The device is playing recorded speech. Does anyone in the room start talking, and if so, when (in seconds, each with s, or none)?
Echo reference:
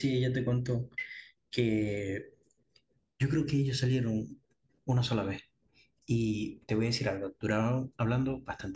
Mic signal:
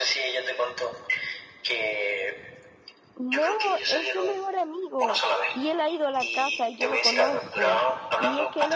3.1 s